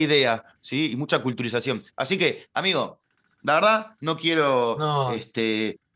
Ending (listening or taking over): listening